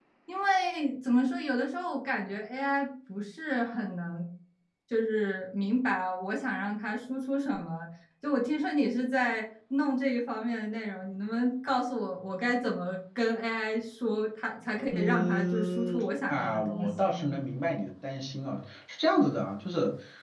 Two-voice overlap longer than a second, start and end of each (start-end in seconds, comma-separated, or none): 14.9-17.3